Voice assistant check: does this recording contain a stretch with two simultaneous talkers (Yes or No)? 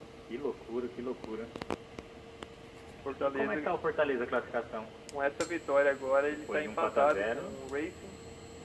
Yes